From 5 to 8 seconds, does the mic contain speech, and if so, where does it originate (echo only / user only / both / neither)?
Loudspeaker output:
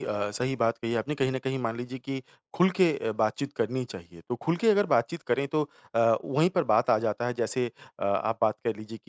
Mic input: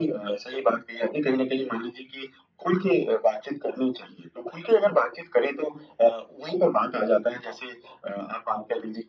echo only